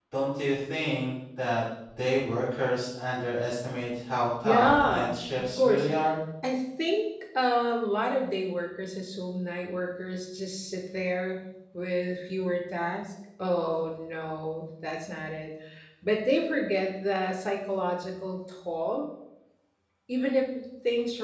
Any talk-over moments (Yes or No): Yes